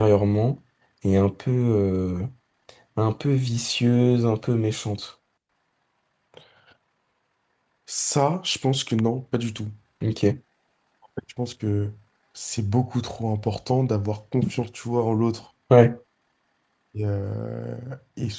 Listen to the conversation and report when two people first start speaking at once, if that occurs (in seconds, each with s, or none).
none